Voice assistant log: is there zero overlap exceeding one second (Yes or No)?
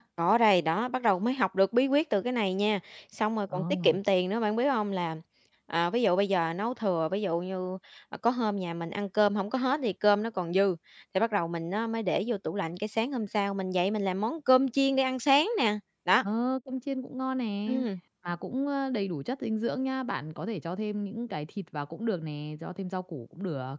Yes